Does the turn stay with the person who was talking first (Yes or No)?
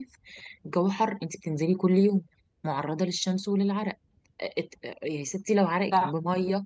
Yes